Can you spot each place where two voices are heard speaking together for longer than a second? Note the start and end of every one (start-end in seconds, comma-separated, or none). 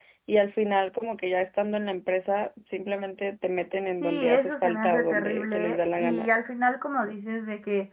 4.0-6.3